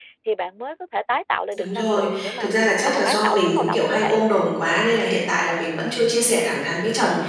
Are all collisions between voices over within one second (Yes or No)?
No